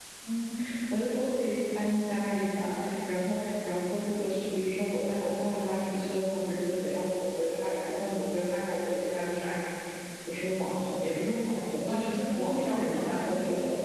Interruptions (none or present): present